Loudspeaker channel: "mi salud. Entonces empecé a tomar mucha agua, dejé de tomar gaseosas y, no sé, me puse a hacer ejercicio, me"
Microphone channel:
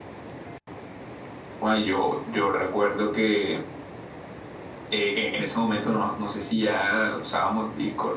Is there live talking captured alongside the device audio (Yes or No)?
Yes